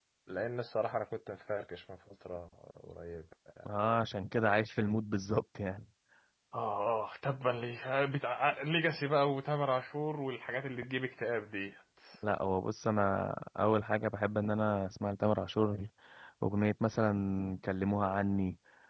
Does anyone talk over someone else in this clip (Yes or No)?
No